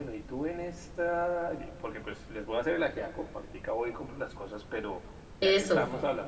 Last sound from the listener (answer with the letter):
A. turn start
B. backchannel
B